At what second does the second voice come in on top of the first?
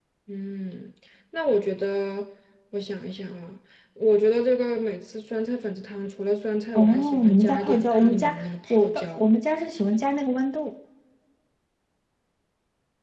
7 s

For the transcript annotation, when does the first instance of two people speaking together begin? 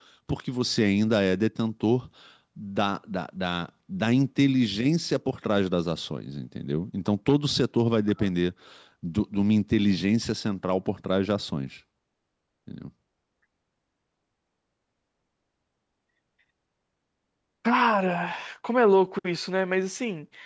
none

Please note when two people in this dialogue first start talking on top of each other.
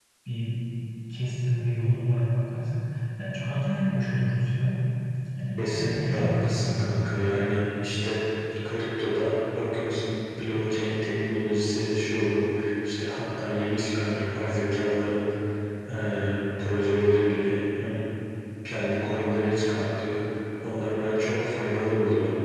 6 s

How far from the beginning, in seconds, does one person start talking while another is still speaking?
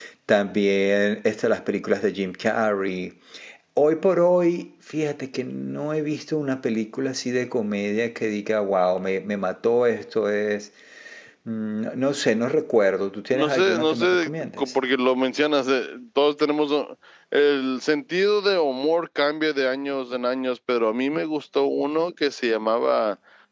13 s

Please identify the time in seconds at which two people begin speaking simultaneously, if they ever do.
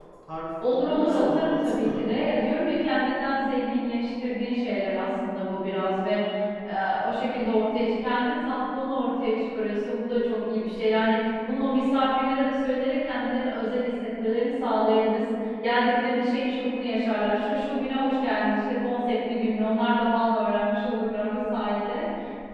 1 s

